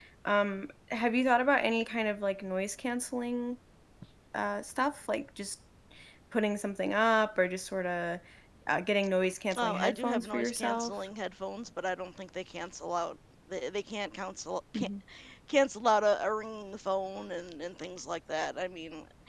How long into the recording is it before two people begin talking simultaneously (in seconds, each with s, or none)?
9.6 s